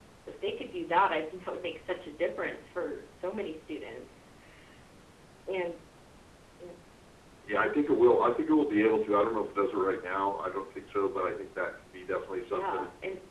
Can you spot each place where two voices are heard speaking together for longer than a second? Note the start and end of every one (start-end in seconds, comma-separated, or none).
none